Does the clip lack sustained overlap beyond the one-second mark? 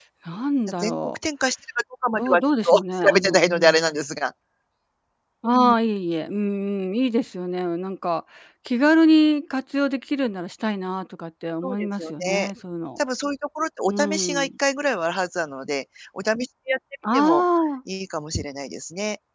No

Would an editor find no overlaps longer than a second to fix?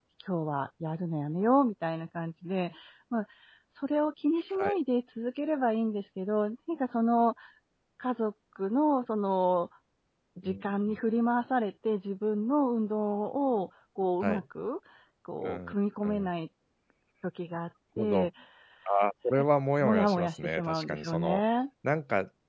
No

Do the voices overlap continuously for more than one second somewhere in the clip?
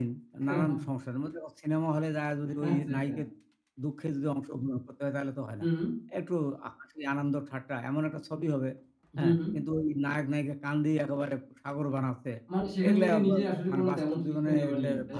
Yes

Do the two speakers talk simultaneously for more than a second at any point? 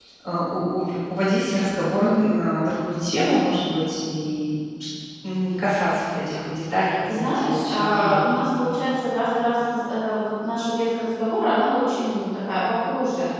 Yes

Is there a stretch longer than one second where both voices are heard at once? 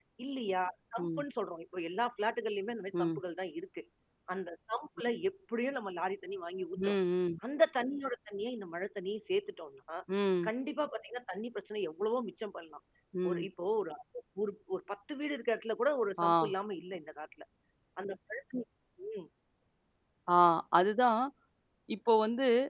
No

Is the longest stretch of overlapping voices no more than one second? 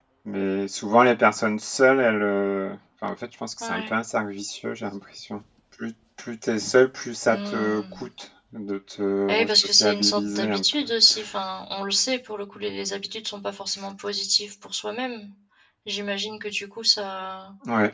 No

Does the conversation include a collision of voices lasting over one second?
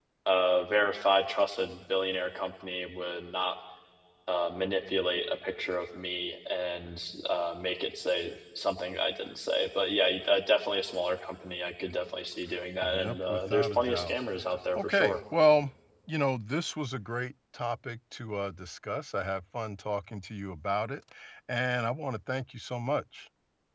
Yes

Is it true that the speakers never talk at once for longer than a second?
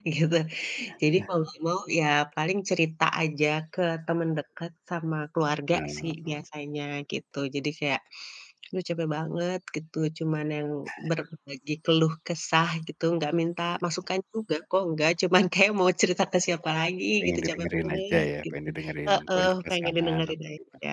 No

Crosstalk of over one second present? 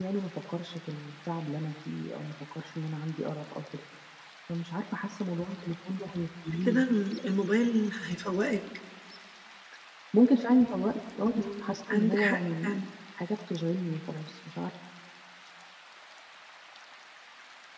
Yes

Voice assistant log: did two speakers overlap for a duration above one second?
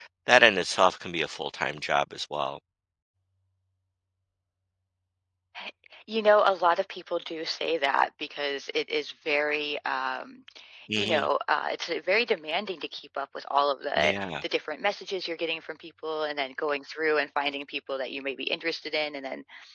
No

